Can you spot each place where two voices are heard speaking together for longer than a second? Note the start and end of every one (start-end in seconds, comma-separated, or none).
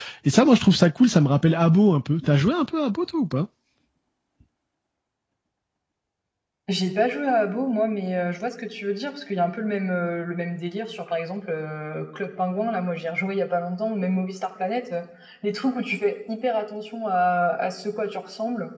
none